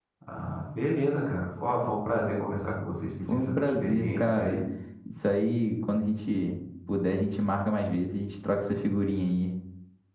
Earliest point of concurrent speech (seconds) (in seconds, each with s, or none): 3.3 s